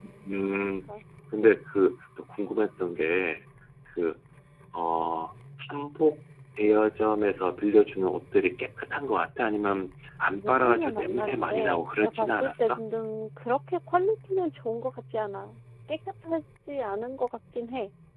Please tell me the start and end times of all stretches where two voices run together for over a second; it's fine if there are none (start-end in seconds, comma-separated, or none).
10.3-12.8